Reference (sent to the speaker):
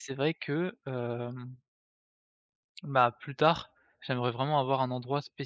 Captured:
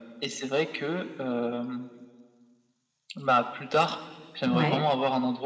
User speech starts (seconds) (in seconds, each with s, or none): 4.4 s